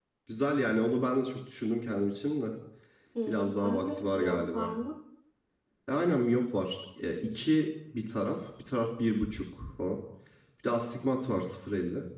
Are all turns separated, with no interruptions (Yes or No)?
No